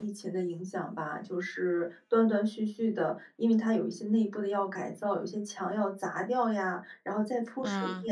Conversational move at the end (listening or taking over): listening